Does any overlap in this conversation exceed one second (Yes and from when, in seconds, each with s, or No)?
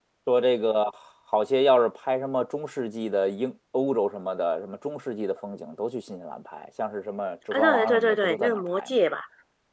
Yes, from 7.5 s